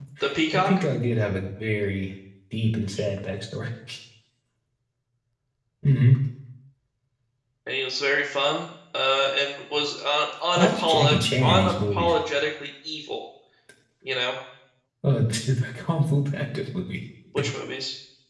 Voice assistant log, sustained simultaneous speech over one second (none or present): present